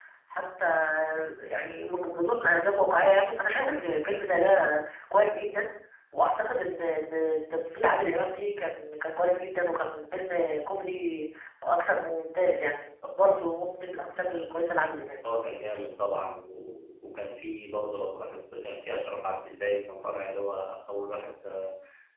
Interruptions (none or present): none